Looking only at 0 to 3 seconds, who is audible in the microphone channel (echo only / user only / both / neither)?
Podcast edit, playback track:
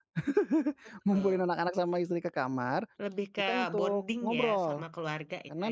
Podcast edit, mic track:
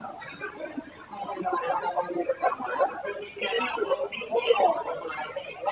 echo only